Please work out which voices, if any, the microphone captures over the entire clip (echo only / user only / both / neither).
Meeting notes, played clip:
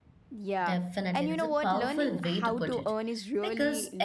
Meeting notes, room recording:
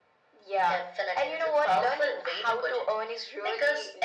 echo only